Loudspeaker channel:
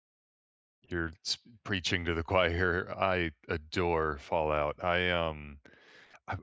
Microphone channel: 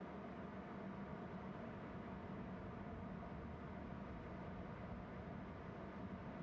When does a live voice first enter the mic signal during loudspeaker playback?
none

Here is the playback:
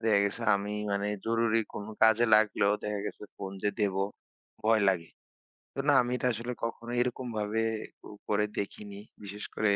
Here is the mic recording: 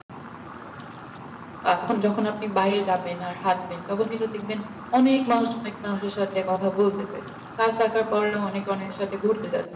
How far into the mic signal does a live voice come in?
2 s

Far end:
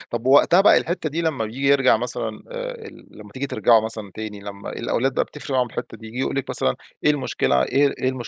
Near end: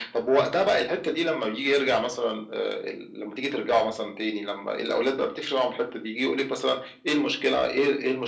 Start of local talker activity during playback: none

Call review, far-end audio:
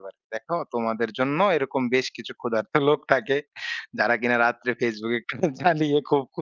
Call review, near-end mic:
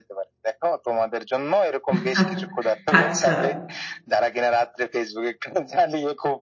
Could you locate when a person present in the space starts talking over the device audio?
2 s

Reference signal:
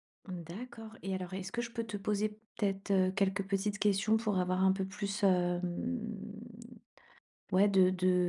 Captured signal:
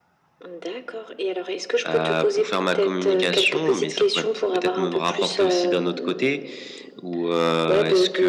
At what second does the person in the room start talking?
2 s

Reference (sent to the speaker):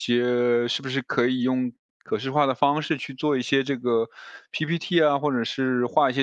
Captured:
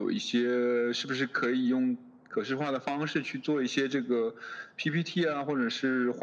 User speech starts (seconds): none

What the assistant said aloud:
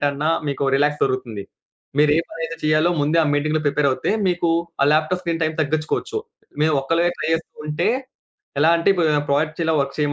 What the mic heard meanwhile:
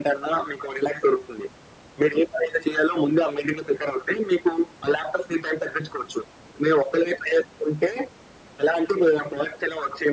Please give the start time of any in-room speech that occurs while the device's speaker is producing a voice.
none

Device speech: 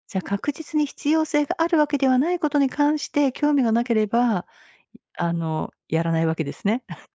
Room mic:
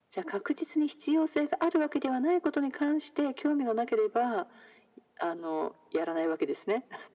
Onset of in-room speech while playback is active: none

